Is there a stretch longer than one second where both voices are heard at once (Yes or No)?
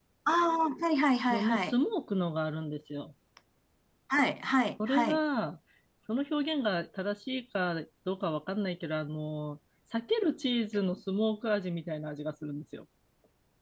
No